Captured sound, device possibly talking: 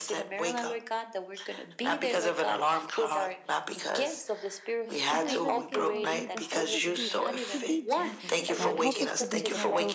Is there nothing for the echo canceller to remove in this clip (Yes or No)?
No